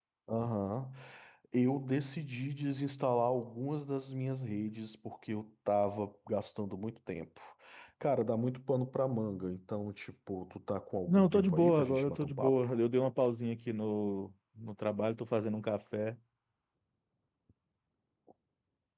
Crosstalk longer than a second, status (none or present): present